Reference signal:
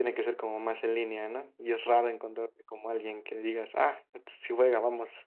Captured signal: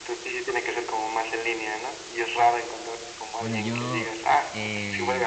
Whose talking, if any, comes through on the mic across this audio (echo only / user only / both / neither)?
both